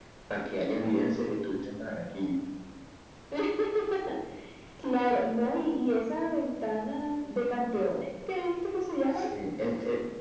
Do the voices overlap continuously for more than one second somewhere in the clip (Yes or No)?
No